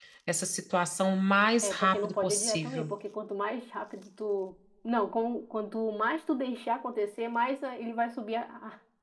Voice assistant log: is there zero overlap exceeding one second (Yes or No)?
No